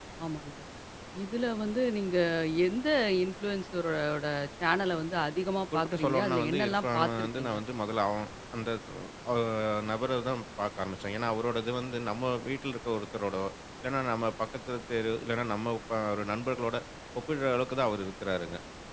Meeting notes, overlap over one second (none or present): present